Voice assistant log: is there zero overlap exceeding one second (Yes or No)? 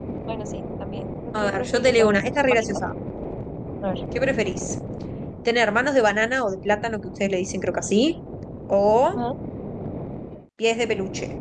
No